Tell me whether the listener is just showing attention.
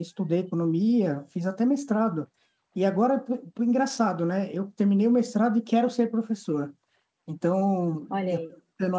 Yes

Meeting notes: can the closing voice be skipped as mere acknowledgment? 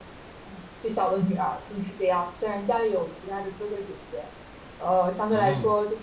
Yes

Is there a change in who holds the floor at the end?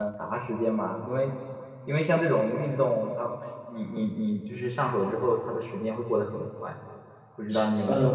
Yes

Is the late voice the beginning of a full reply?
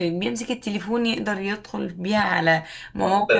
Yes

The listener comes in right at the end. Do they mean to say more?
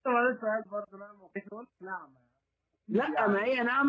Yes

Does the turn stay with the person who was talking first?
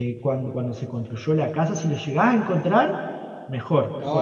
No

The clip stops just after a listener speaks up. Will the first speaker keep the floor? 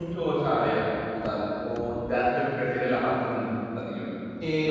No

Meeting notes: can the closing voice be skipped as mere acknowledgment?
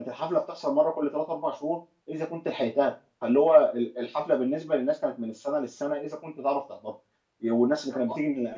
Yes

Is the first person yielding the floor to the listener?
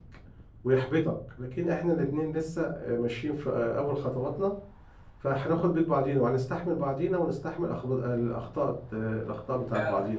Yes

